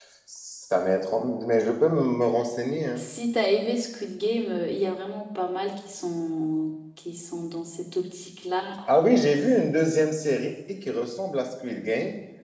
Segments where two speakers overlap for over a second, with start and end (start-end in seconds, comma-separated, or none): none